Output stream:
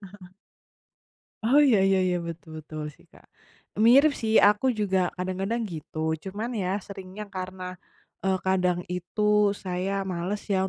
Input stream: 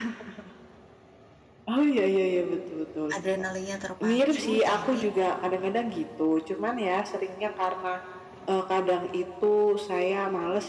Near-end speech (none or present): present